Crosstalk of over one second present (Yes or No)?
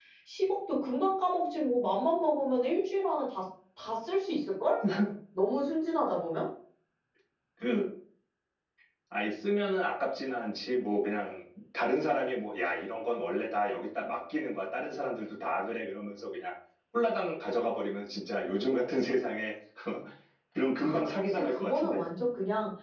Yes